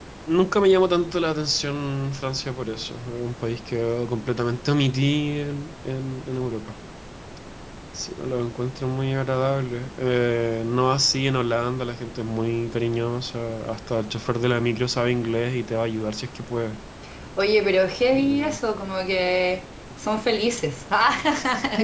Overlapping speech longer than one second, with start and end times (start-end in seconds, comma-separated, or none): none